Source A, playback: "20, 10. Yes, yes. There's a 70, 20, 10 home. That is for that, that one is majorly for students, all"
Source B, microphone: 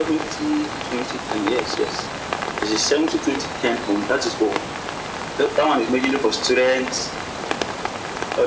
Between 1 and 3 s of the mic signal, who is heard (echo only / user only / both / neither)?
echo only